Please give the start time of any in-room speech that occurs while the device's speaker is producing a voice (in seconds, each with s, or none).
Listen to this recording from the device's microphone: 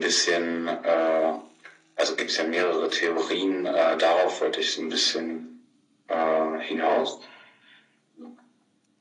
none